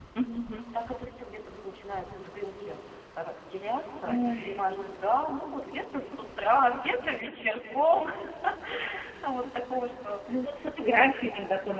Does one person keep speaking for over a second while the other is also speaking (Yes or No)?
No